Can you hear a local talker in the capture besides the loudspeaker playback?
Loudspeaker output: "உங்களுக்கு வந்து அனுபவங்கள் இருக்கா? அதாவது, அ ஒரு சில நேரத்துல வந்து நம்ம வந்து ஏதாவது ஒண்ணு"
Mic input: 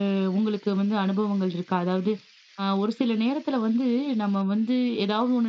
No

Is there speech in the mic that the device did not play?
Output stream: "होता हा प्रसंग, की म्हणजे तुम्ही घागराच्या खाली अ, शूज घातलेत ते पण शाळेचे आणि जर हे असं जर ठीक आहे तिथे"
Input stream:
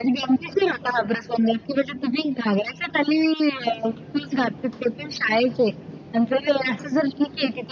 No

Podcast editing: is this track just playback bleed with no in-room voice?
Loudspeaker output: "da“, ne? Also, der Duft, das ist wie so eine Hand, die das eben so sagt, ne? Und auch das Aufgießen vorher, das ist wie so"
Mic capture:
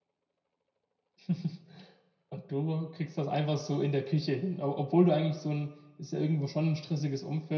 No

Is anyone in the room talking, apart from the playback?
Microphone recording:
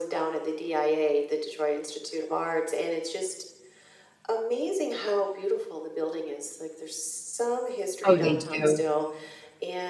Yes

